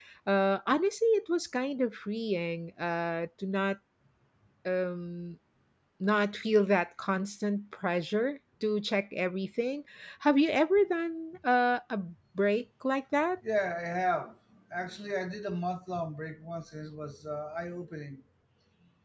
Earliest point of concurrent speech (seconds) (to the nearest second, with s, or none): none